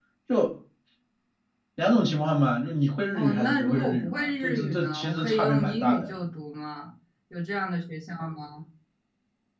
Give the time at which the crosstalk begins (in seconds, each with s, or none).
3.1 s